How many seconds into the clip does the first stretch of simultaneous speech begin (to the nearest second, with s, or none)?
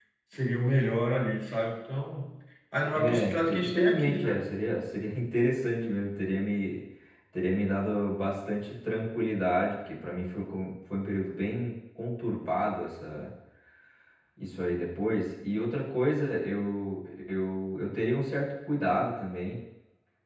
3 s